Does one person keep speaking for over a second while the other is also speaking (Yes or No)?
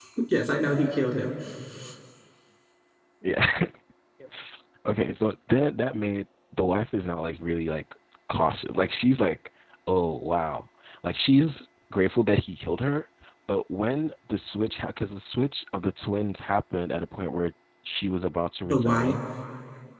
No